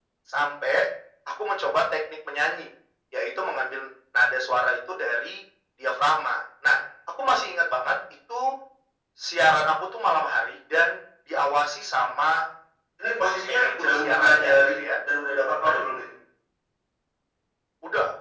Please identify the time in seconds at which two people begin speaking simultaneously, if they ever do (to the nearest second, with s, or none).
13 s